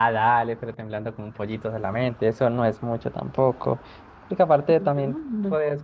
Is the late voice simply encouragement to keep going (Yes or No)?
No